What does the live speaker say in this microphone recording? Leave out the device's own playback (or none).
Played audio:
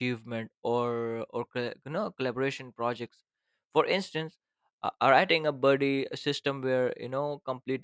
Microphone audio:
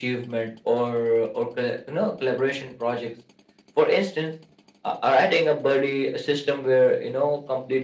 none